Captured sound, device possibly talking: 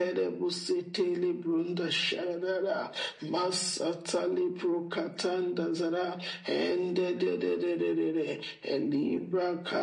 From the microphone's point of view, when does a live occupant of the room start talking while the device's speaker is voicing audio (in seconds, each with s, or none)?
none